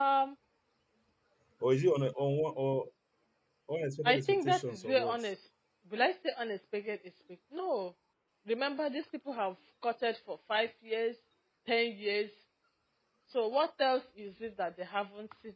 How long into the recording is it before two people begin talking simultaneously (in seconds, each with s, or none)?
4.0 s